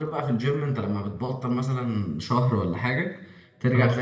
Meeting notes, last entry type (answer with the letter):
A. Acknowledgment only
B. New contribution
A